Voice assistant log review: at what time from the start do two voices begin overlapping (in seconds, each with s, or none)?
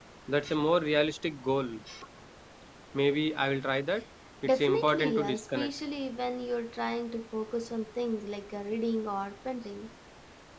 4.5 s